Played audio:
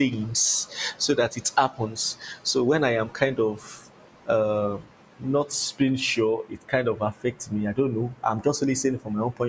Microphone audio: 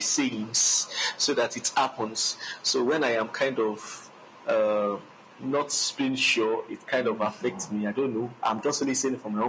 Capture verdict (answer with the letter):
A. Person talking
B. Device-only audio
A